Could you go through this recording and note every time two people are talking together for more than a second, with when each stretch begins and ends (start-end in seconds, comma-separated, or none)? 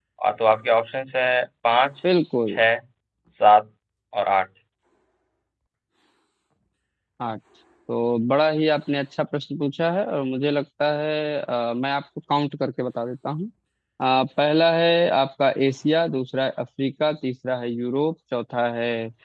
none